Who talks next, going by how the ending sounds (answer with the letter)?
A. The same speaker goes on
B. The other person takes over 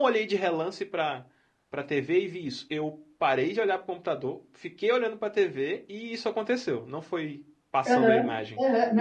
B